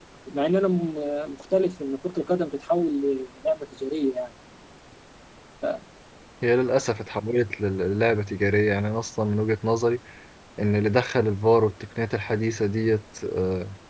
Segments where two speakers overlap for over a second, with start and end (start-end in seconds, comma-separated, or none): none